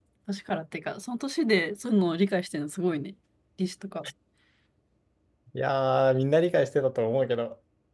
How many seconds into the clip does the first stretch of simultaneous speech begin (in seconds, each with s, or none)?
none